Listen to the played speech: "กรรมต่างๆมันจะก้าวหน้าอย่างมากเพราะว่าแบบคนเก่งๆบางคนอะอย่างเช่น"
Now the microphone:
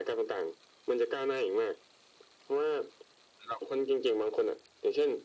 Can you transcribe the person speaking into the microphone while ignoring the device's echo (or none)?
none